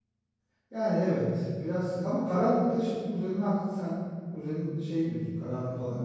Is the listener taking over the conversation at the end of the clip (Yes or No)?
Yes